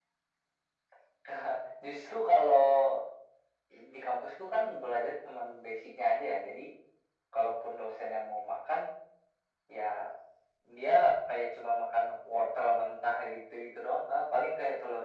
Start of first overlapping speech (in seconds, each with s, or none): none